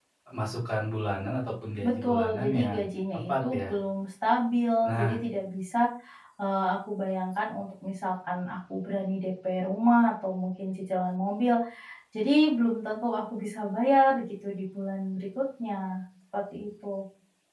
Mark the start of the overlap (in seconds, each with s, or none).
1.9 s